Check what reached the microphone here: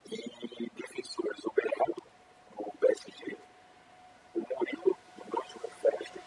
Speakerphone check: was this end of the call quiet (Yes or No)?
Yes